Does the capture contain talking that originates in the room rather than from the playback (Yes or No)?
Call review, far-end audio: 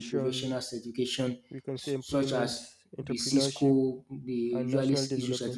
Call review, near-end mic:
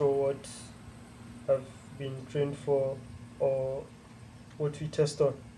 Yes